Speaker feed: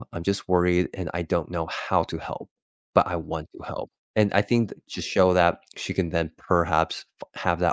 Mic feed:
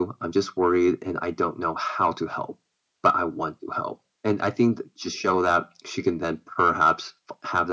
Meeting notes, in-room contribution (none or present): none